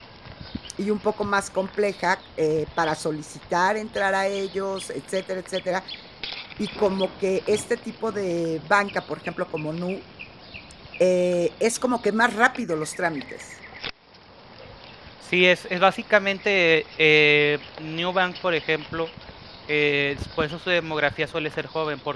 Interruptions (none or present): none